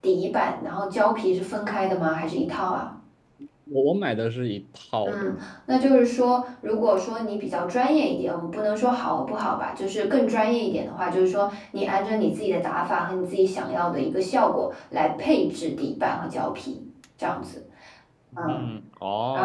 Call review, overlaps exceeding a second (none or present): none